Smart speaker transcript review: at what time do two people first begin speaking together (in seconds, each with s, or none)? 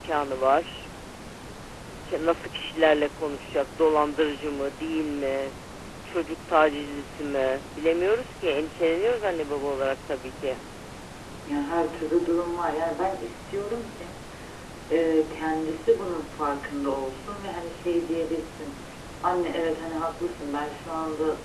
none